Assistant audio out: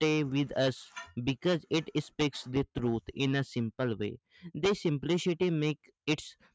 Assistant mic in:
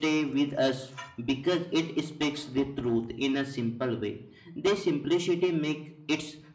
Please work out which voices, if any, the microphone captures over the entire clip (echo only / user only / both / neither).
echo only